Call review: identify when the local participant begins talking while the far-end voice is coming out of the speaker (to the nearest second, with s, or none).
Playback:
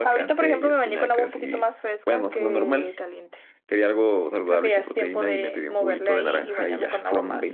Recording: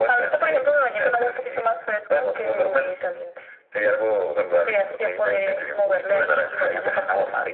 none